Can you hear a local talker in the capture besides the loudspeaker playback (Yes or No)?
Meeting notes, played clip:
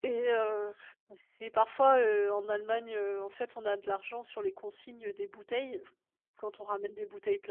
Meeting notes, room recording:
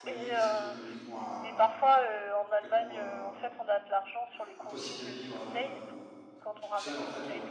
Yes